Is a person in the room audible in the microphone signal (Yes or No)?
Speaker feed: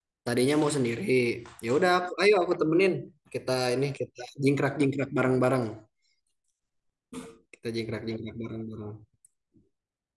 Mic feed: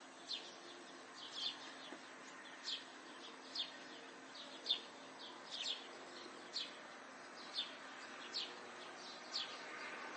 No